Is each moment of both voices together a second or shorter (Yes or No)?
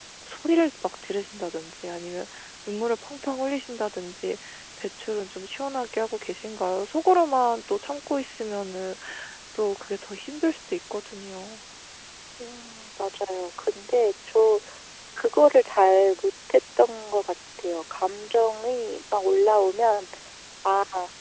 Yes